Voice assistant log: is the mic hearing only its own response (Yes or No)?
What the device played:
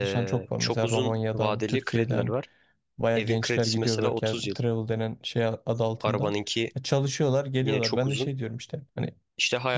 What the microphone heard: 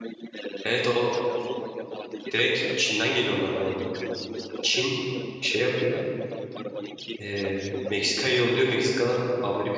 No